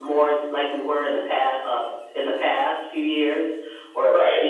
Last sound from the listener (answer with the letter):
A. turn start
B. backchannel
B